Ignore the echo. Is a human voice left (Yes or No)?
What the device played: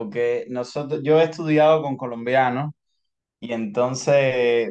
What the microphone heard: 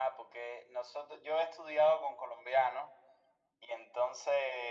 No